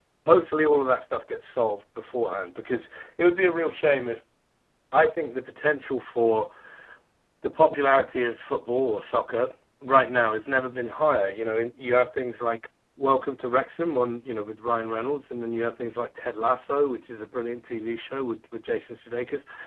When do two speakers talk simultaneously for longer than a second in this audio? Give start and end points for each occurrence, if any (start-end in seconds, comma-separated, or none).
none